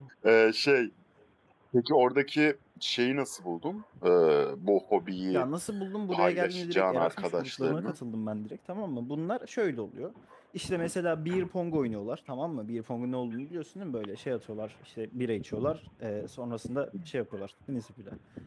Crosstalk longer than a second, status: present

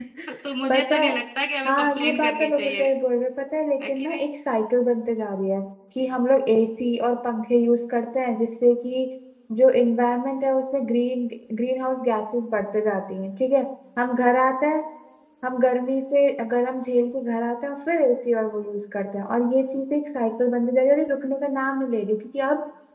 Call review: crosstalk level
present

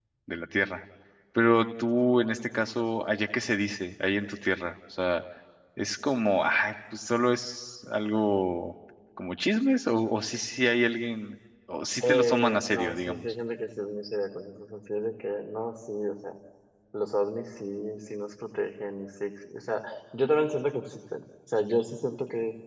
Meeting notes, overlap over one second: present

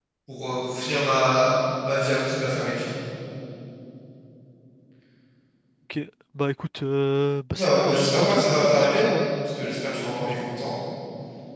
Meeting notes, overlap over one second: present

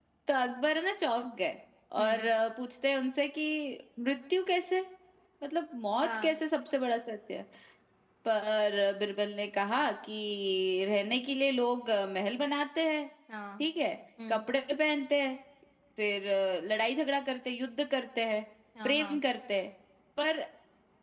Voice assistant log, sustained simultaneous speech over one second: none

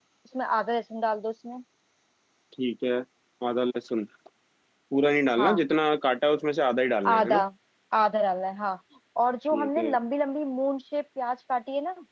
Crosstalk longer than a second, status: none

